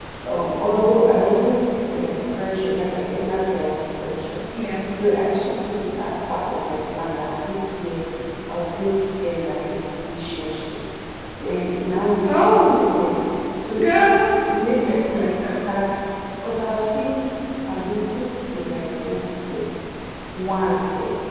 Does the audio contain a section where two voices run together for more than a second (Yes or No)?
No